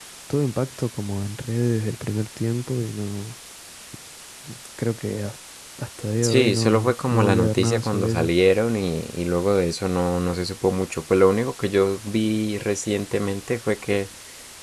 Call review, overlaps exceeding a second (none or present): present